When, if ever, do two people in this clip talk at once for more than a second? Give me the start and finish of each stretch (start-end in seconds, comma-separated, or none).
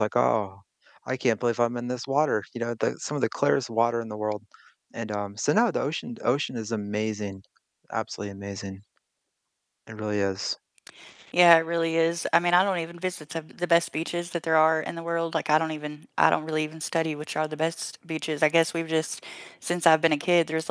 none